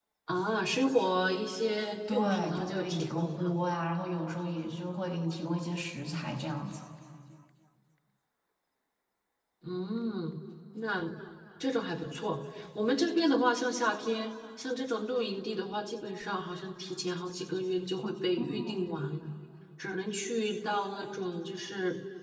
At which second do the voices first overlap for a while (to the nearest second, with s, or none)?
2 s